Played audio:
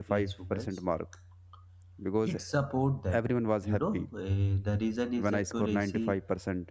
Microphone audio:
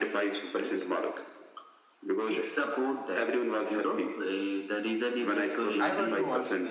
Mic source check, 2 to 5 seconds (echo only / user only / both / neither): echo only